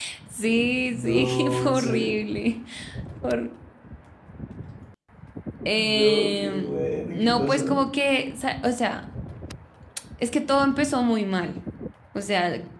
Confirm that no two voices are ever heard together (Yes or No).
No